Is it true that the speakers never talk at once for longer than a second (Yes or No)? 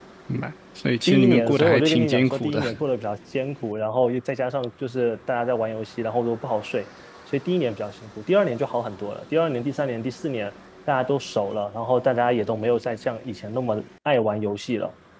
No